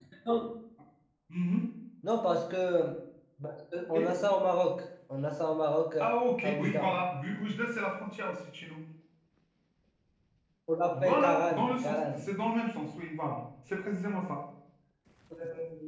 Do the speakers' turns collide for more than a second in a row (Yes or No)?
Yes